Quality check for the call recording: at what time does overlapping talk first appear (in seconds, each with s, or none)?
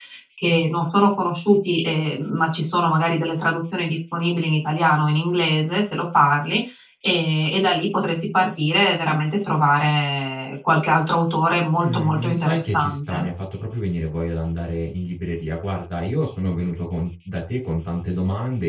11.8 s